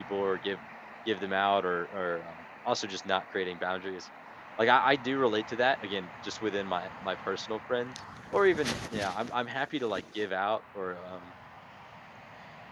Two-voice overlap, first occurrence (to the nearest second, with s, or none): none